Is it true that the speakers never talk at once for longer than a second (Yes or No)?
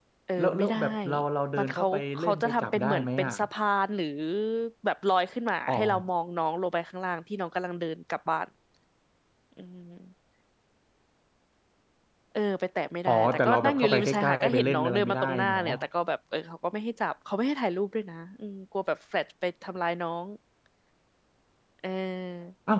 No